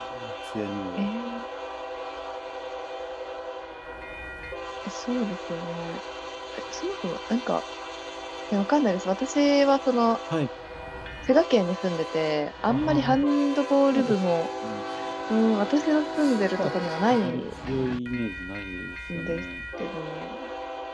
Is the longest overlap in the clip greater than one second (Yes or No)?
Yes